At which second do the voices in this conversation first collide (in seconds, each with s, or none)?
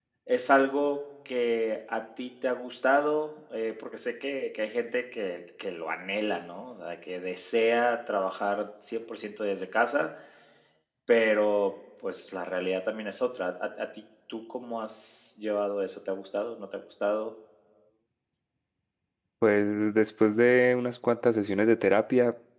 none